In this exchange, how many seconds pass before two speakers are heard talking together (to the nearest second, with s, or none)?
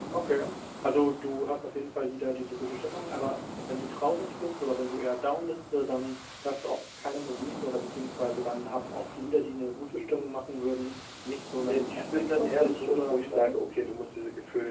12 s